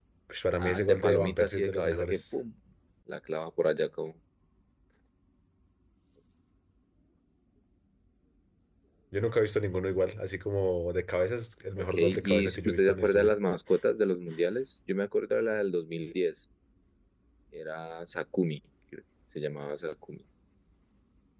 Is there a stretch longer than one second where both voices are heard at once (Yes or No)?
Yes